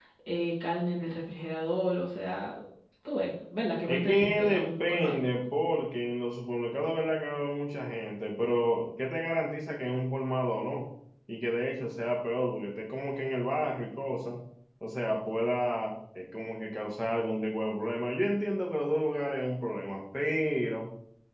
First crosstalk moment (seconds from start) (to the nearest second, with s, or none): 4 s